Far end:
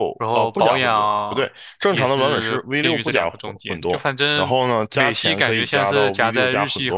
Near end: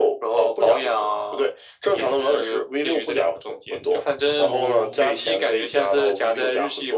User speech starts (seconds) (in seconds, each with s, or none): 4.2 s